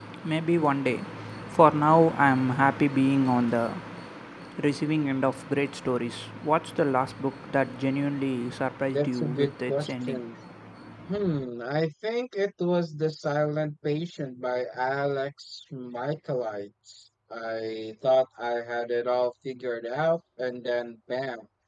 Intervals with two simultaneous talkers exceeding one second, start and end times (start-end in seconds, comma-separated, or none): 8.9-10.2